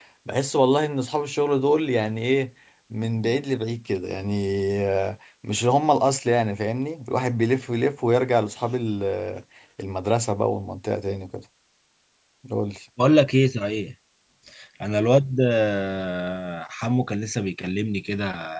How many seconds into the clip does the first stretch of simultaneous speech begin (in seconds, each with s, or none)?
none